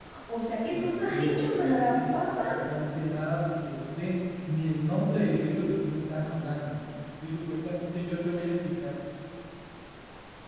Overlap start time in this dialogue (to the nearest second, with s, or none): 1 s